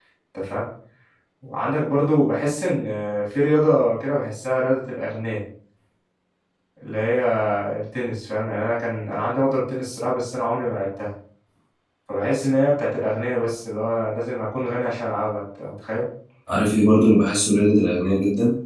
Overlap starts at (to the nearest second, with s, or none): none